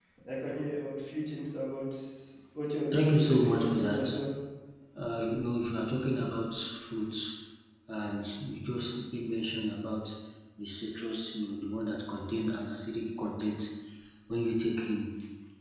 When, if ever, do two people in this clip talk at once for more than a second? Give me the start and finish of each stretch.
2.9-4.1

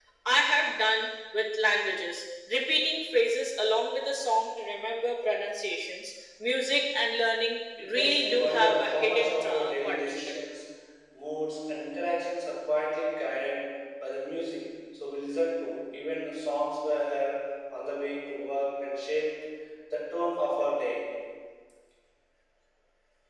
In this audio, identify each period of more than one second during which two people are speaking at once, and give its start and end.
8.0-10.3

